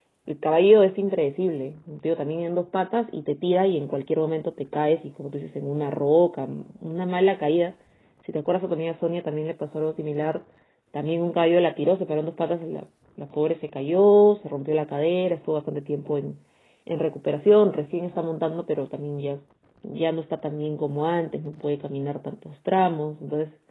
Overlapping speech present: No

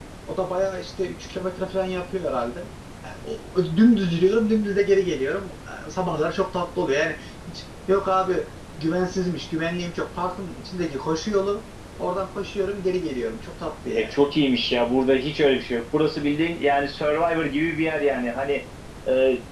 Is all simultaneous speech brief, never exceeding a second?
Yes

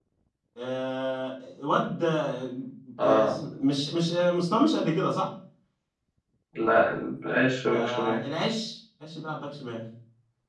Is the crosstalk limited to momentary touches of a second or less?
Yes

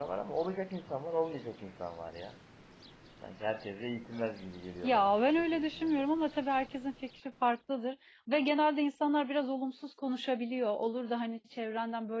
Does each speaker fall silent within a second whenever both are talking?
No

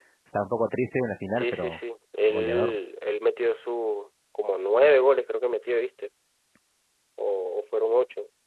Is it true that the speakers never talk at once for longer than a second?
Yes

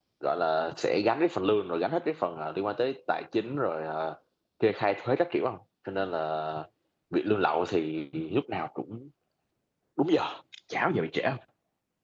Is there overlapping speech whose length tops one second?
No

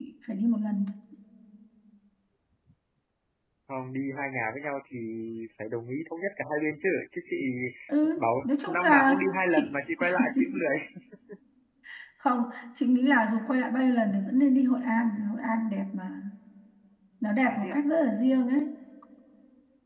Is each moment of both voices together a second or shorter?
No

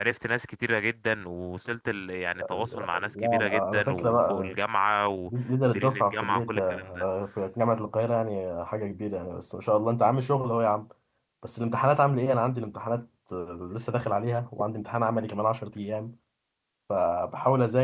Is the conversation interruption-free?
No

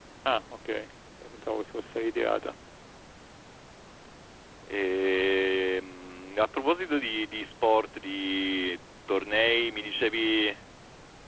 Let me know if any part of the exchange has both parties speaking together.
No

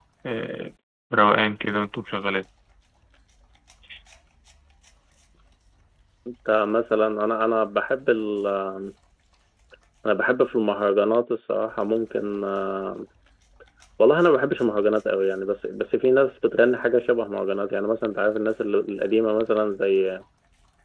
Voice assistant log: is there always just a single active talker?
Yes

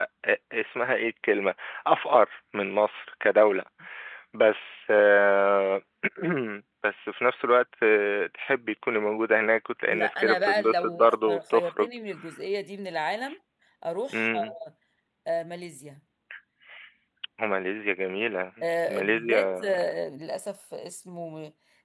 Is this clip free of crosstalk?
No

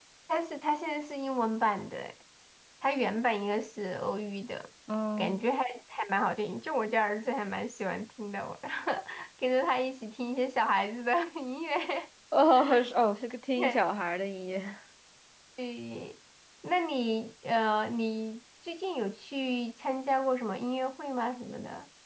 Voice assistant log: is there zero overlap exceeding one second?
Yes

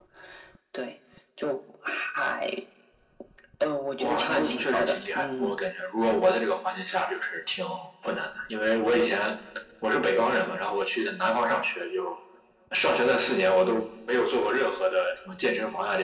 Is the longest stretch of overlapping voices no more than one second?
No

